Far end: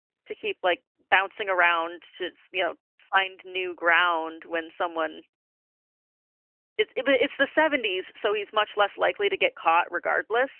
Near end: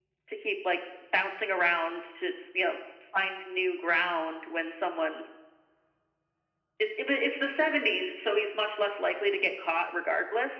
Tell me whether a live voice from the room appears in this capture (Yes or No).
No